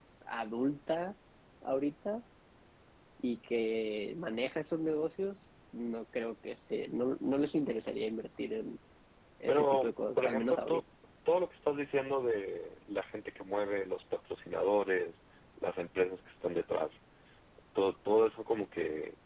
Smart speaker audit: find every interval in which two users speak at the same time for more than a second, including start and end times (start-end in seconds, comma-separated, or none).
9.5-10.8